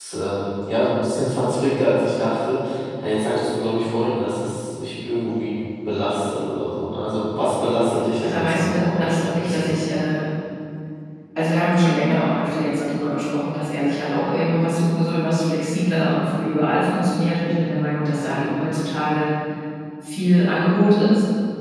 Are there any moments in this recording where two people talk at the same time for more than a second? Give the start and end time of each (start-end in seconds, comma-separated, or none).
8.2-9.8